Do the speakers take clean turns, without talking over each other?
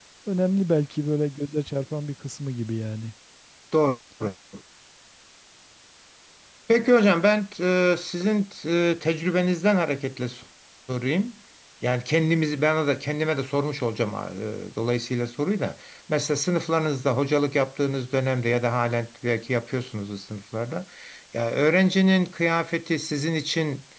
Yes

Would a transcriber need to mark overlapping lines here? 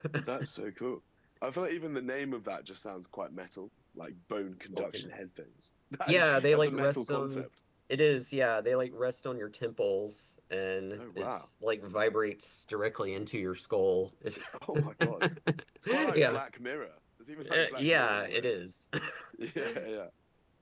Yes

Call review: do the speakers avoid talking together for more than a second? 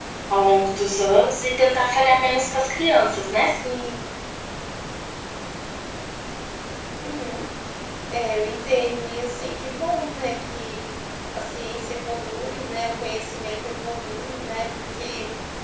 Yes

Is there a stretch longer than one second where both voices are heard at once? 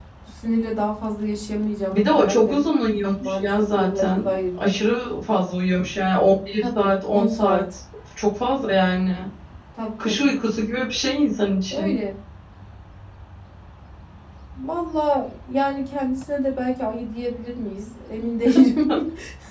Yes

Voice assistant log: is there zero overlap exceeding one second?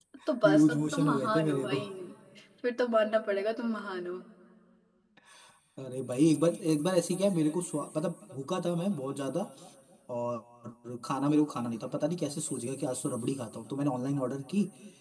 No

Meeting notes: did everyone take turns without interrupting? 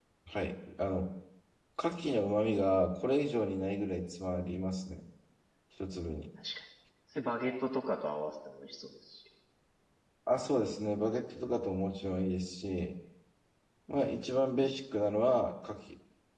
Yes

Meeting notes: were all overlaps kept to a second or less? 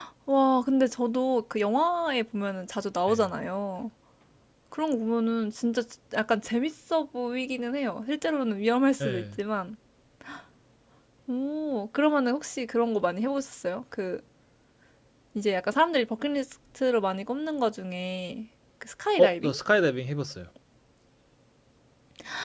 Yes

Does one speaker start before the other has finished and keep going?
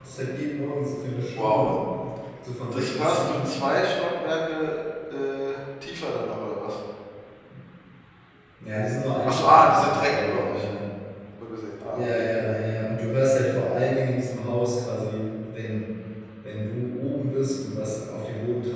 Yes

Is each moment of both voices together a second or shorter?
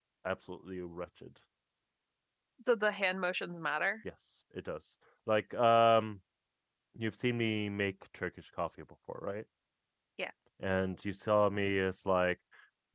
Yes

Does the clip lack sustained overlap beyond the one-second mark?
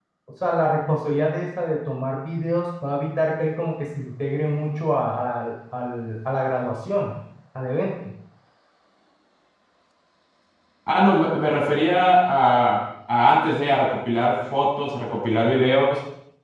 Yes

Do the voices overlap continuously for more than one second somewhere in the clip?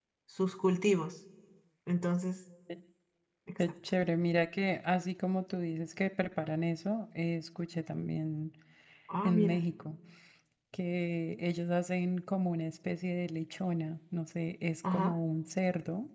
No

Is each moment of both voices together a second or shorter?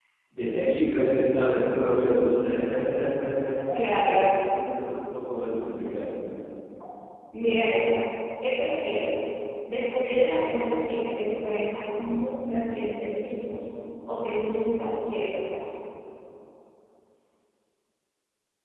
Yes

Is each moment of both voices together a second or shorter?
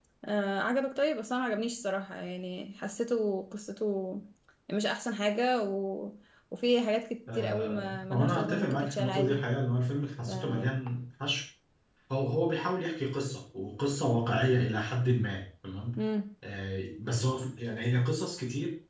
No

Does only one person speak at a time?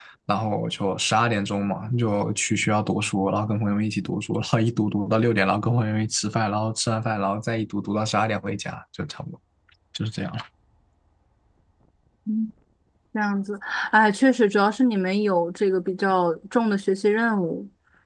Yes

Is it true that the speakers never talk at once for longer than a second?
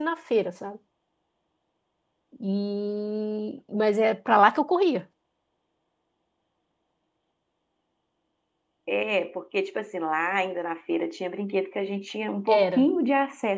Yes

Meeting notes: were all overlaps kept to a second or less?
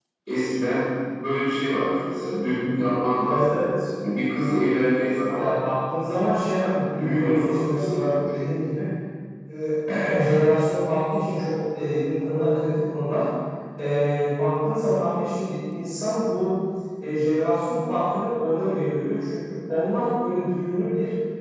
No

